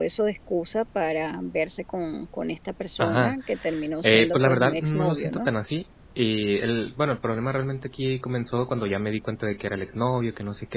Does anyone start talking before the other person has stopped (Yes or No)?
Yes